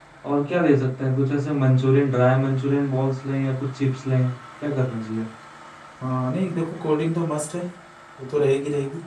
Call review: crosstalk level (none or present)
none